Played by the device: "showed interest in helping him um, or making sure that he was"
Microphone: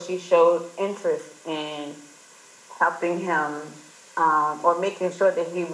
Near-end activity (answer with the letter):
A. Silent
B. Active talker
A